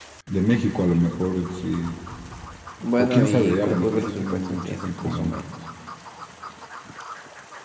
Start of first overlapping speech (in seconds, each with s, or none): 3.0 s